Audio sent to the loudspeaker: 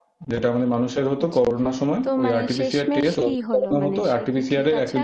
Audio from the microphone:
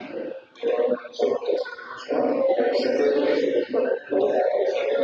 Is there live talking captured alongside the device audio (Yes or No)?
No